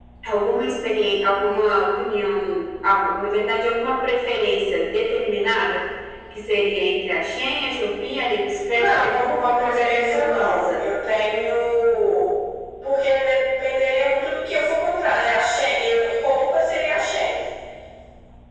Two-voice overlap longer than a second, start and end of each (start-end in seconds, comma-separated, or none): 8.7-10.8